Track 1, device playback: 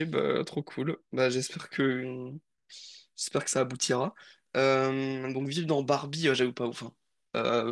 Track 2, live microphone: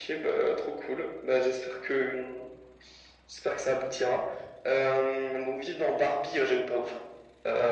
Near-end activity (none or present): none